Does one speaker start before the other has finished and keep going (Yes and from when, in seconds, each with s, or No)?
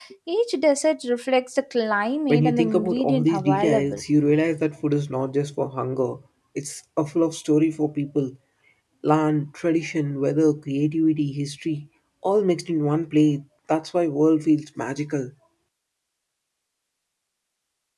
Yes, from 2.3 s